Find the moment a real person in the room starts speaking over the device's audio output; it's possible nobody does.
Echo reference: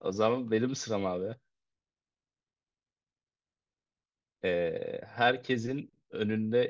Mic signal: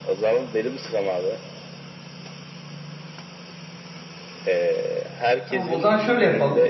5 s

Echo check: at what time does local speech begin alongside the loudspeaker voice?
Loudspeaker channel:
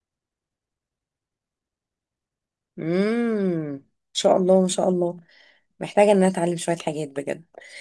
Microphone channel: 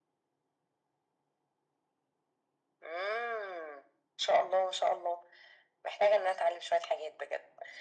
none

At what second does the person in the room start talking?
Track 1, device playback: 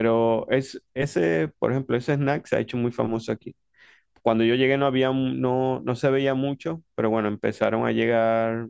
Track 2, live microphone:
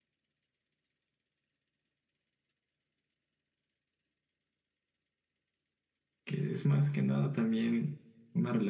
6 s

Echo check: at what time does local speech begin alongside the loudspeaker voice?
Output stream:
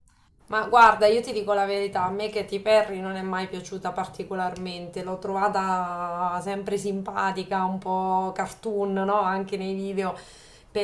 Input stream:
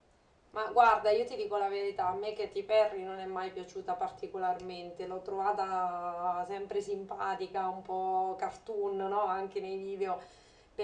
none

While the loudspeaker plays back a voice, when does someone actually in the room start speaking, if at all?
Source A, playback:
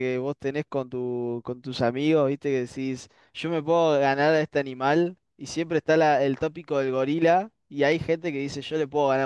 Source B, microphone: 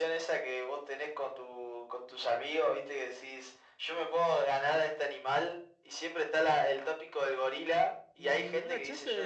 8 s

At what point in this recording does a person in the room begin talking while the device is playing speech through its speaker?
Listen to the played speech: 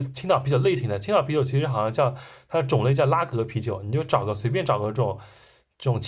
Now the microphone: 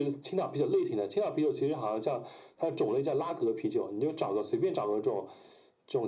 none

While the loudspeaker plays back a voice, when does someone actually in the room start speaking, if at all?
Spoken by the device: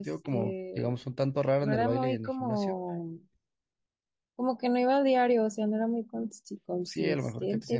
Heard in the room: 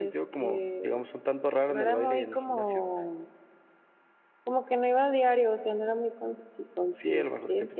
none

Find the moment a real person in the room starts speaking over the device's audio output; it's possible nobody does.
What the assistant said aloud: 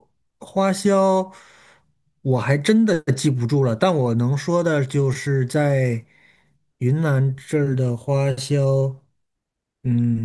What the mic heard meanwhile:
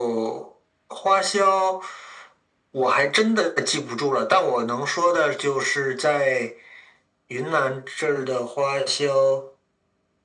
none

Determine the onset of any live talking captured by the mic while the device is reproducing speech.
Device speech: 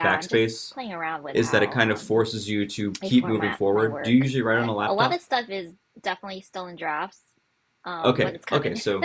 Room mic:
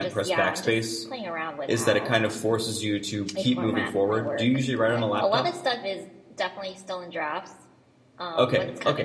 none

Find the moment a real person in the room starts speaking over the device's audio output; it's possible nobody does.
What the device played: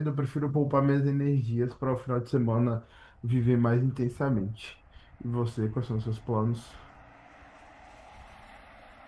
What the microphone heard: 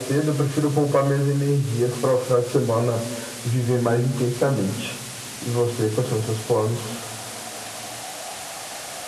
none

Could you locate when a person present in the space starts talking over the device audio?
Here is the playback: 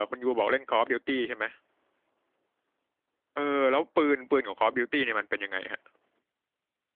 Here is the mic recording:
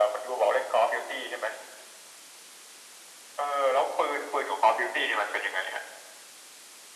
none

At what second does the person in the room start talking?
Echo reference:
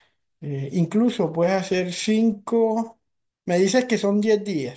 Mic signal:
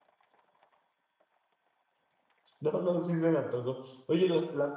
3 s

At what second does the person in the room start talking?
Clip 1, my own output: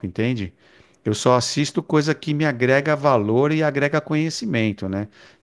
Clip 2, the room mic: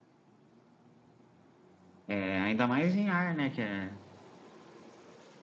2 s

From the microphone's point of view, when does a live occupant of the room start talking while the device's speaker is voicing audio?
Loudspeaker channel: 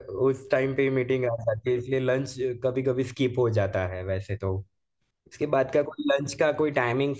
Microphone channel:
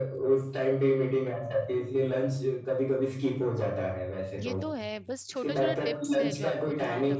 4 s

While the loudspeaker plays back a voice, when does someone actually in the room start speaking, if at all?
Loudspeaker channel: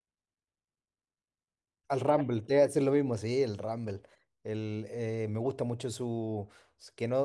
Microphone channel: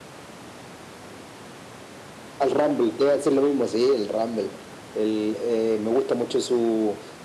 none

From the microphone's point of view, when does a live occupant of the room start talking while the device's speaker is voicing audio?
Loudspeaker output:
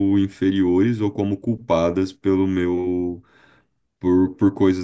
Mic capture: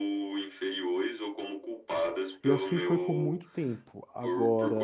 2 s

